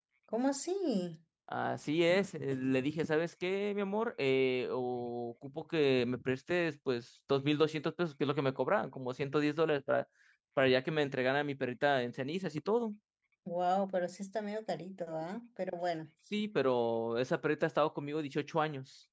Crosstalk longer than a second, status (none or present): none